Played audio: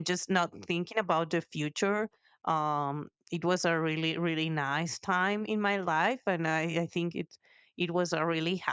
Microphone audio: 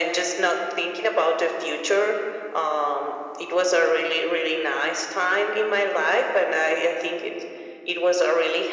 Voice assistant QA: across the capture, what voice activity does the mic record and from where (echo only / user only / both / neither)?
echo only